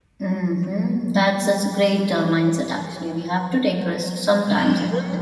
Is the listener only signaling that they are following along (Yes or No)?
No